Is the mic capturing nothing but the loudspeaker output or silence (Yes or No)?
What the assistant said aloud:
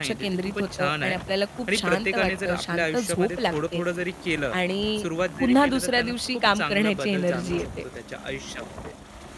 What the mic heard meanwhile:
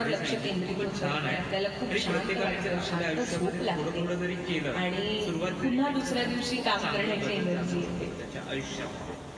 Yes